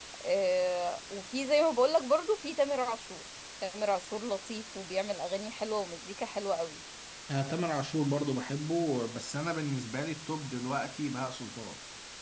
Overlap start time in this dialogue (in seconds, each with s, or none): none